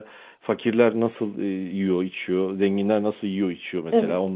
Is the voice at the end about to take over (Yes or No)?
No